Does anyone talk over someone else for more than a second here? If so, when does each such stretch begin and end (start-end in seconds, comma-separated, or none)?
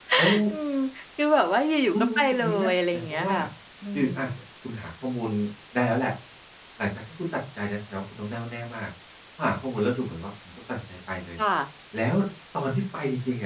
1.9-3.3